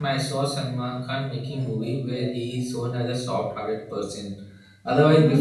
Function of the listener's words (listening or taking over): listening